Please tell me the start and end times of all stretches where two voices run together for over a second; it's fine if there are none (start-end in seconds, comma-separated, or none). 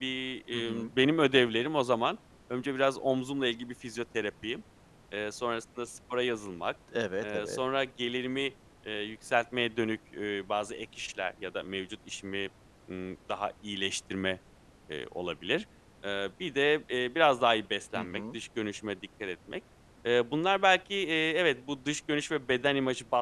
none